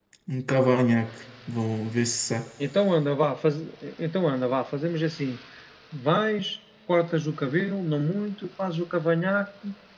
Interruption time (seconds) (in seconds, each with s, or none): none